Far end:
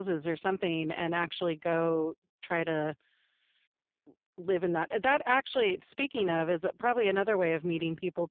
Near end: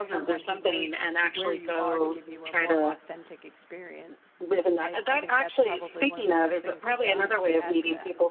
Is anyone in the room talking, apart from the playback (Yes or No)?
Yes